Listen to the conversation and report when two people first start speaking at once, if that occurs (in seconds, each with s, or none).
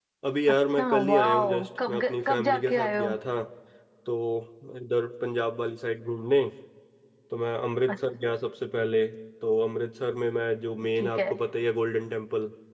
0.8 s